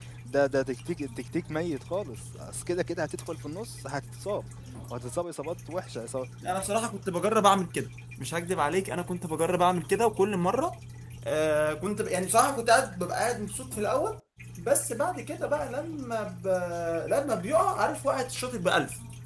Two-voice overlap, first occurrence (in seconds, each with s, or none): none